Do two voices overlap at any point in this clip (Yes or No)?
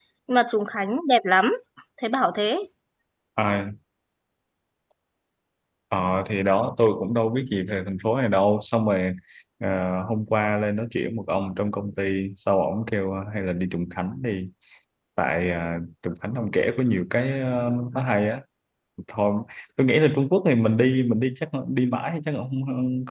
No